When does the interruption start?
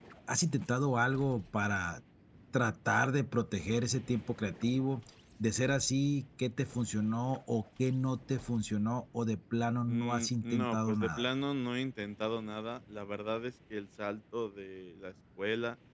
9.9 s

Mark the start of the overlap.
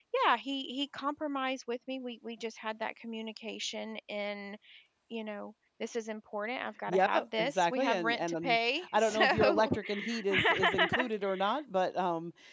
6.9 s

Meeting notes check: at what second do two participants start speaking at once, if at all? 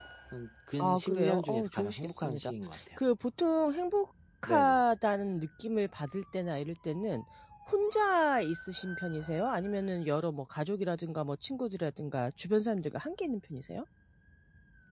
0.8 s

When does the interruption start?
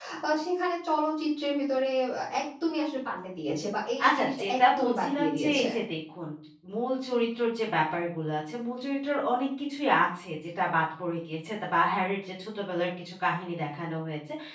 4.0 s

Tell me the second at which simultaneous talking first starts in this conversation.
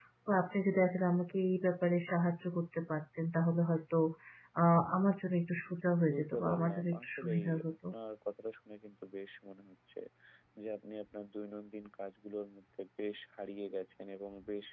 6.1 s

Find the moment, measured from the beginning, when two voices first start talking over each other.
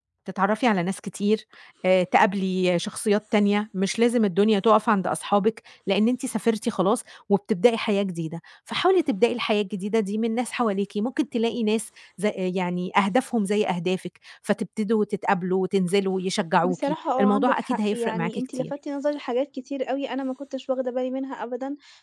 16.6 s

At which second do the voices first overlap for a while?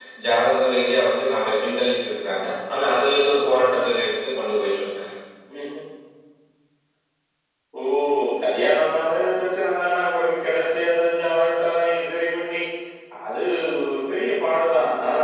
none

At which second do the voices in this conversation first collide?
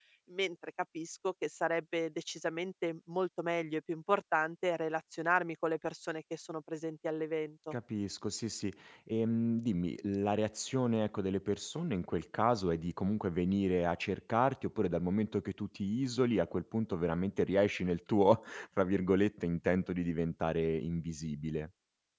none

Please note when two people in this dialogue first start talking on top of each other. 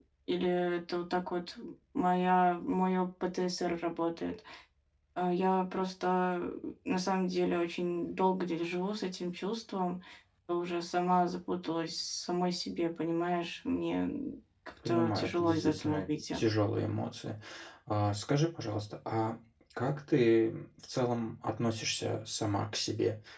14.8 s

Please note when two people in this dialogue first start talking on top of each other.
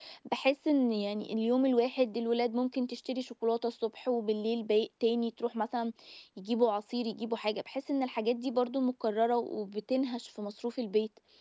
none

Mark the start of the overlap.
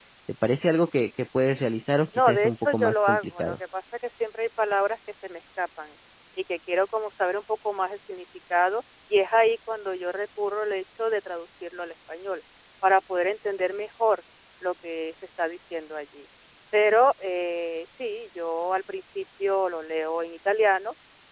2.1 s

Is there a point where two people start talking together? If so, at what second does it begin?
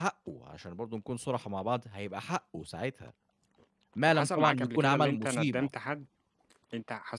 4.1 s

